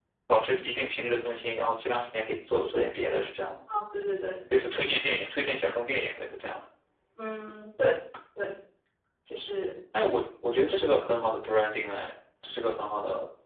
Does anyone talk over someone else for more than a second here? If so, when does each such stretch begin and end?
none

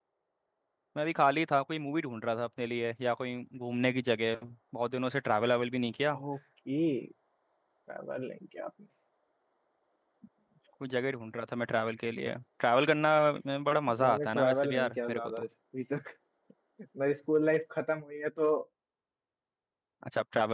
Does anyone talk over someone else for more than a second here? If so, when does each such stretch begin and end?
14.0-15.5

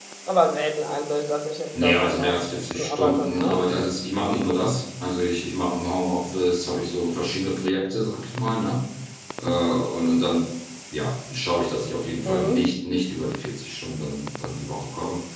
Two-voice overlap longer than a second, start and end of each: 1.8-3.6

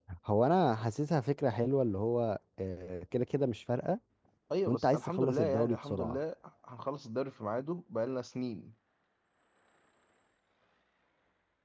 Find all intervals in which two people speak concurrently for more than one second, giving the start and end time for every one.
4.7-6.2

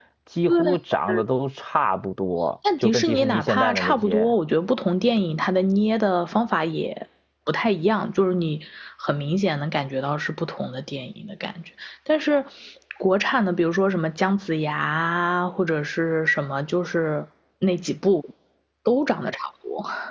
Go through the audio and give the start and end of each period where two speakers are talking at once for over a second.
2.8-4.3

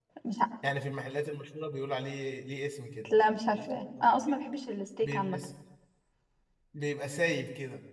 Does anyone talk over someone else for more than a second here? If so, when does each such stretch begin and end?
none

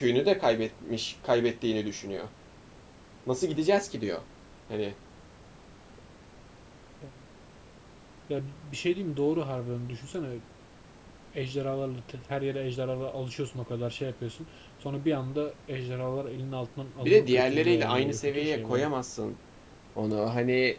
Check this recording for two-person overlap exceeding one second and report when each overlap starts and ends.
17.0-18.9

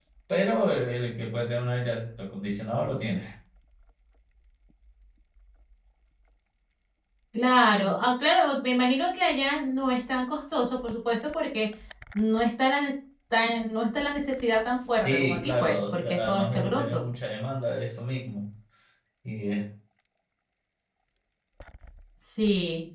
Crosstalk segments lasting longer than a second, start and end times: 15.0-17.0

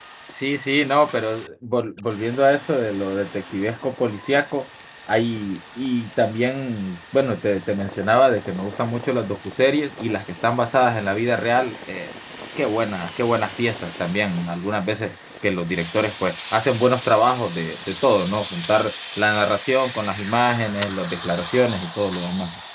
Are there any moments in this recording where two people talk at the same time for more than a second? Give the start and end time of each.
none

